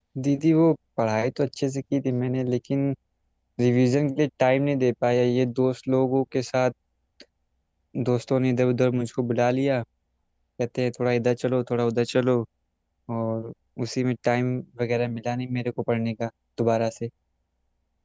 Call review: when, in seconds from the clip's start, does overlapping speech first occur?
none

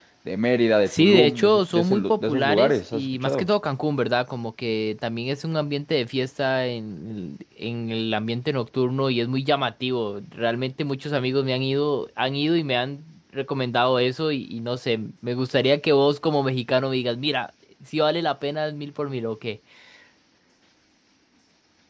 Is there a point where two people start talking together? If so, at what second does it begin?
0.9 s

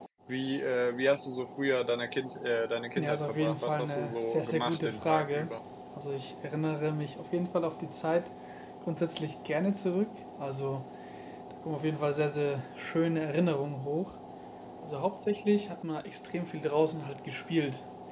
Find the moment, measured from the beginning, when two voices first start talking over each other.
3.0 s

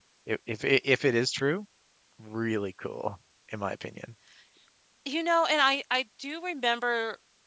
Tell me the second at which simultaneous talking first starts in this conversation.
none

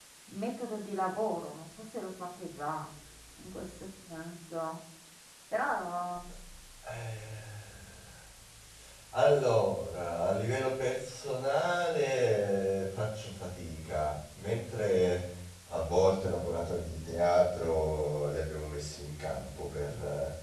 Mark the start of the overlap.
none

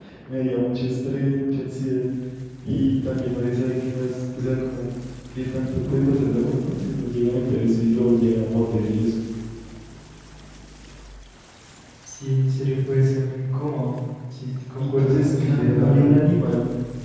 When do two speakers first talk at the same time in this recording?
14.8 s

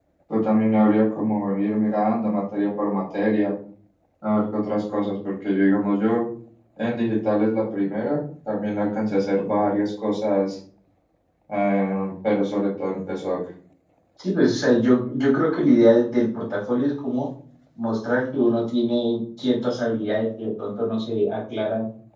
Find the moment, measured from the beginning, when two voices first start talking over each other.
none

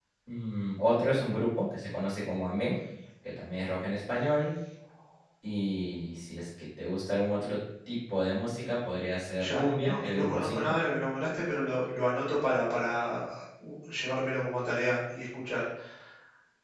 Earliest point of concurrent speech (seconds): 9.4 s

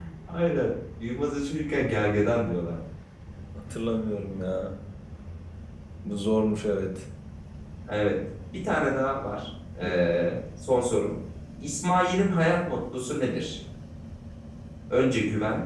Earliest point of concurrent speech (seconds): none

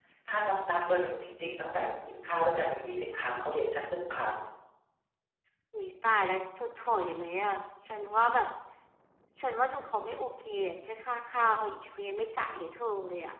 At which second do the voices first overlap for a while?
none

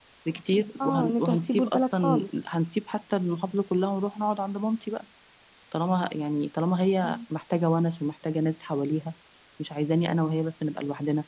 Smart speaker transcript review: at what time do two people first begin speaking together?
0.8 s

